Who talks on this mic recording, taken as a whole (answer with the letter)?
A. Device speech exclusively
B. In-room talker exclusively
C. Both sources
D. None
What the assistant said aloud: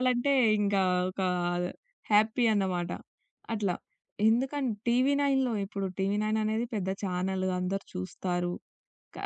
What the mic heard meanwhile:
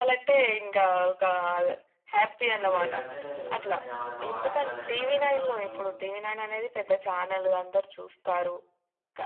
C